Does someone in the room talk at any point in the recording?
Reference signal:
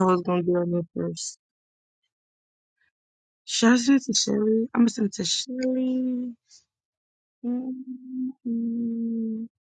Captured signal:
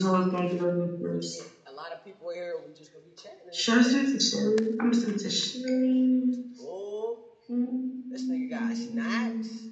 Yes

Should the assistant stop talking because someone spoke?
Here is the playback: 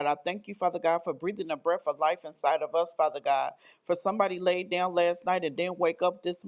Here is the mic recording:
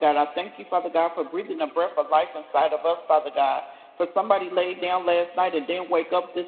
No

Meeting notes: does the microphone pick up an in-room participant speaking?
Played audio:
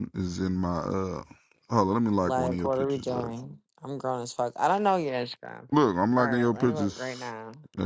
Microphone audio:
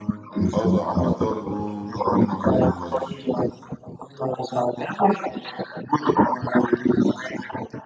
Yes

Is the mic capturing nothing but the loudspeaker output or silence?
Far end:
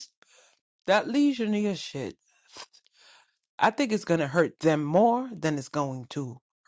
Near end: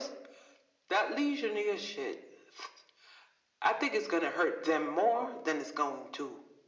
Yes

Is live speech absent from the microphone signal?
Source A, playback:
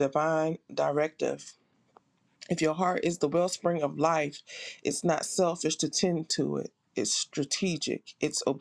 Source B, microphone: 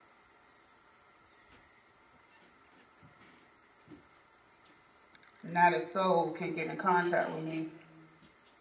No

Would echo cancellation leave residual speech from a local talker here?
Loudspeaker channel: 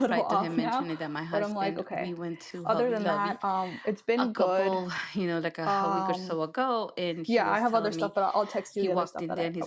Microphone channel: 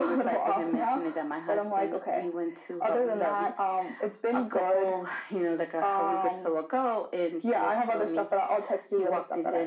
No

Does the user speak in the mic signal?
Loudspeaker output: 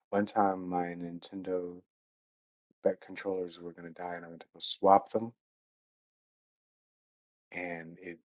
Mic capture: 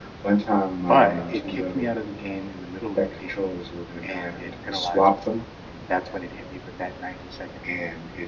Yes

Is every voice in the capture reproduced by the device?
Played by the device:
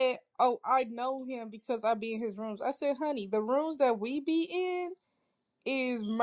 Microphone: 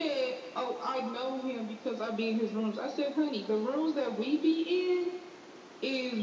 Yes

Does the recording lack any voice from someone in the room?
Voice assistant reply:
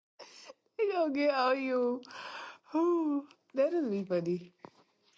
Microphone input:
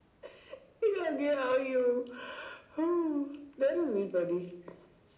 Yes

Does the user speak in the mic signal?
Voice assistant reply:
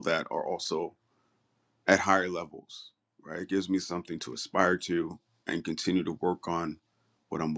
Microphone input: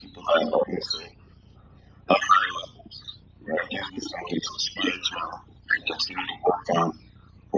No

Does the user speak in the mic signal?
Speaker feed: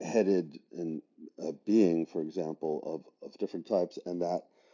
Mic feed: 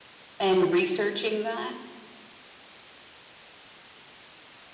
Yes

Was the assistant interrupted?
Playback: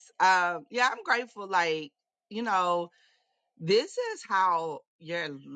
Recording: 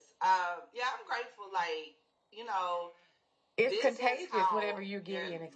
Yes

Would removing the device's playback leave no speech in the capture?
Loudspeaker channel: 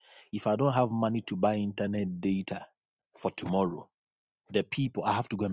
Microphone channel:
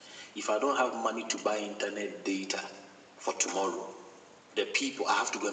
Yes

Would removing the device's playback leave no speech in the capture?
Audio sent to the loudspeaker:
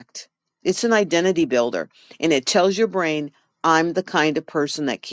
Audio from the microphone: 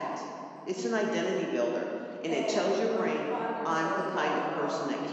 No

